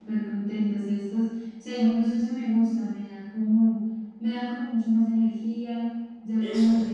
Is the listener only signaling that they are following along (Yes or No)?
Yes